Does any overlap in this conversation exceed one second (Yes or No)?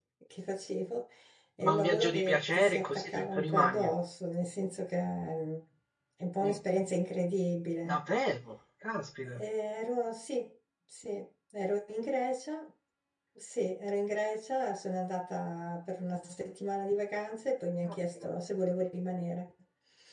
Yes